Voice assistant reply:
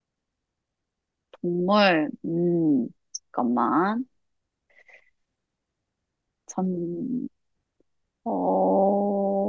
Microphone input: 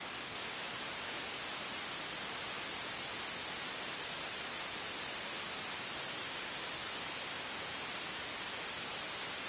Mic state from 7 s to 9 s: neither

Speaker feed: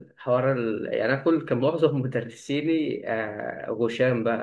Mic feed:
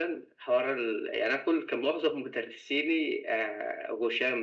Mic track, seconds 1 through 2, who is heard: echo only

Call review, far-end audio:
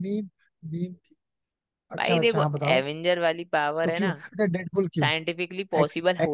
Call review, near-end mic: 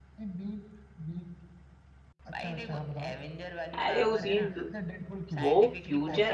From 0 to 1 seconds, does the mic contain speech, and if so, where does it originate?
echo only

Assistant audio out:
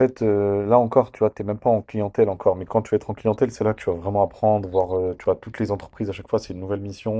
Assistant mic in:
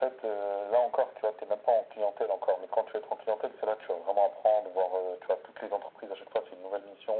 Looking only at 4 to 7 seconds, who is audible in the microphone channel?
echo only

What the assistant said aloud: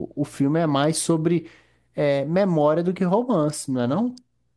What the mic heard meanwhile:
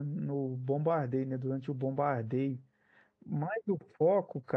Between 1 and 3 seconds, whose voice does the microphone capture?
user only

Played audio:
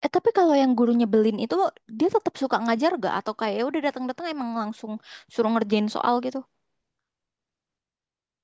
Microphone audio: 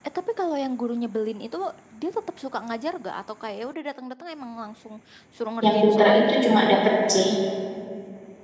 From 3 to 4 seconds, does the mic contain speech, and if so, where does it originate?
echo only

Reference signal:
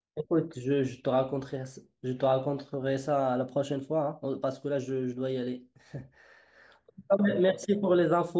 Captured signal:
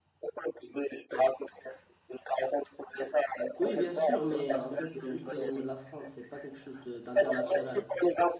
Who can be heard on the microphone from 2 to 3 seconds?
echo only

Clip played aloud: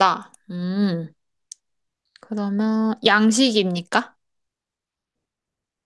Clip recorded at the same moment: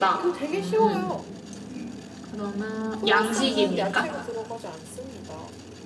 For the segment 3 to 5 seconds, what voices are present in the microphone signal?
both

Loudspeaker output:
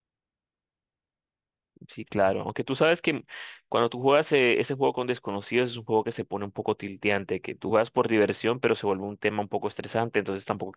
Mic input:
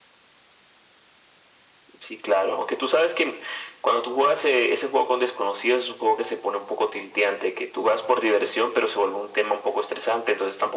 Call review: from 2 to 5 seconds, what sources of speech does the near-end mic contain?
echo only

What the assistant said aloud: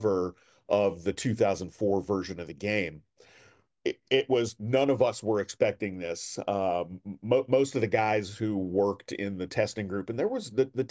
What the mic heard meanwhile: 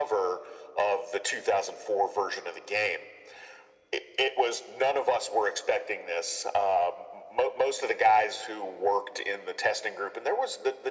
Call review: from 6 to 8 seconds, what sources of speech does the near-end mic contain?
echo only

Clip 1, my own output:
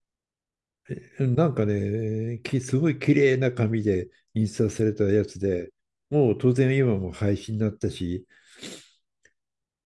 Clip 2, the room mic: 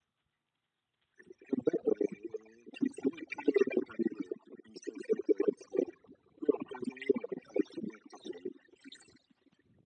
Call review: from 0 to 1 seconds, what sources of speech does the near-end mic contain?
neither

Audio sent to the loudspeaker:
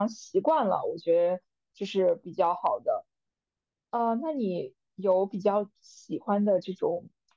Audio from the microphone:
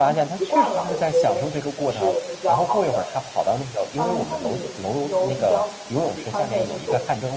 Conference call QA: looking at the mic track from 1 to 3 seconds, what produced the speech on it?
both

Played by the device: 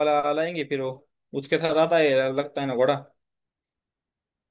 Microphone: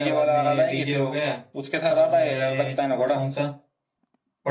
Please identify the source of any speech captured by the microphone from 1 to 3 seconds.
both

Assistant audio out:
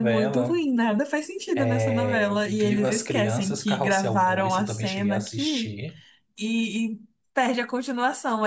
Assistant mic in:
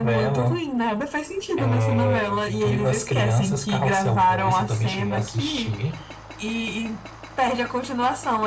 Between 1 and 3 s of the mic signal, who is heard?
echo only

